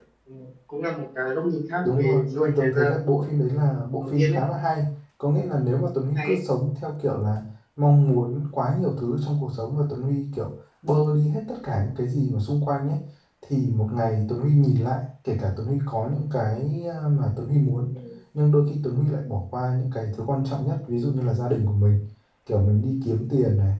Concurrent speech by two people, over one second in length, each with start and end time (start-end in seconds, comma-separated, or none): 1.8-3.2